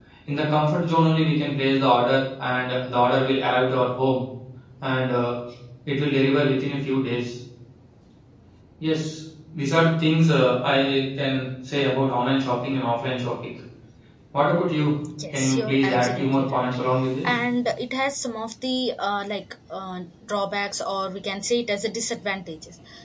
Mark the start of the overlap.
15 s

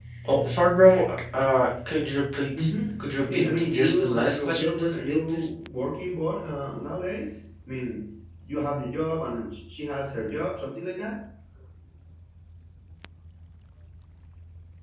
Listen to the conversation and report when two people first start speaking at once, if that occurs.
3 s

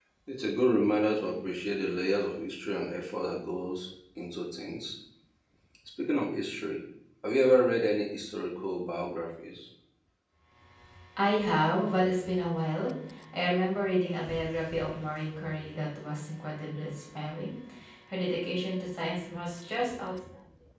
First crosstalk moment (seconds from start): none

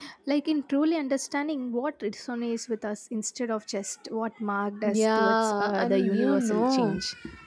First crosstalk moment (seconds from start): 5 s

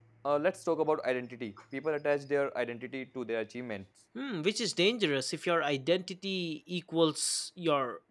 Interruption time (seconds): none

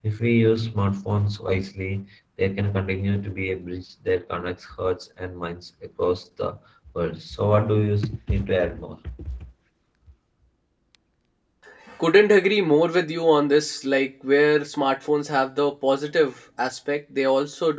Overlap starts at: none

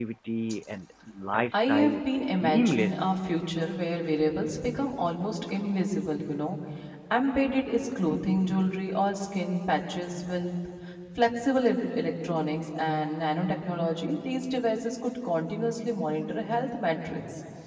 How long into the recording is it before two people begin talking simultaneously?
2 s

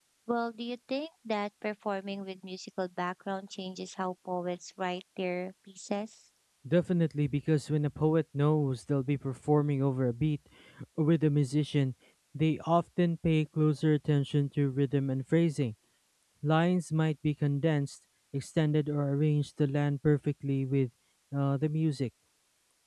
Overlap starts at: none

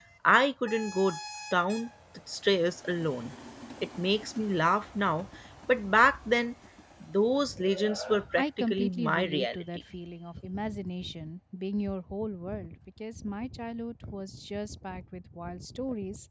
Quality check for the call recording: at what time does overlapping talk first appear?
8 s

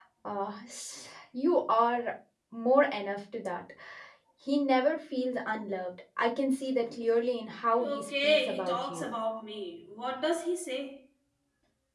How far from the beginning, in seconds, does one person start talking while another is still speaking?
8 s

